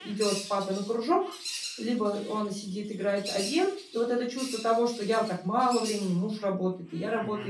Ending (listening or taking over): listening